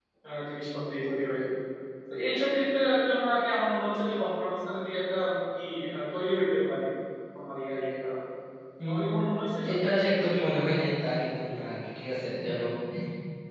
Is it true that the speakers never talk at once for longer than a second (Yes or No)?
Yes